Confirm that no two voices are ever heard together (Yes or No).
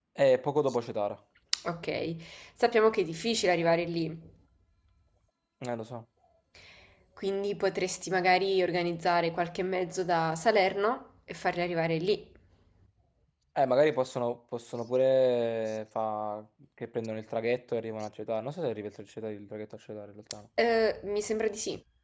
Yes